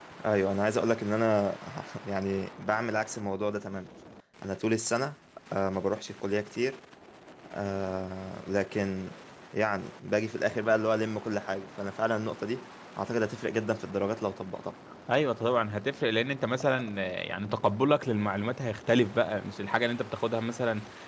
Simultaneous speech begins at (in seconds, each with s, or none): none